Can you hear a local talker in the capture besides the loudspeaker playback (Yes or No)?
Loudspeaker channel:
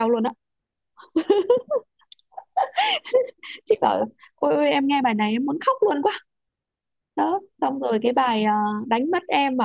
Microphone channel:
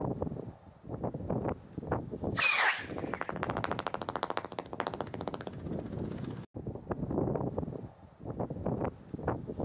No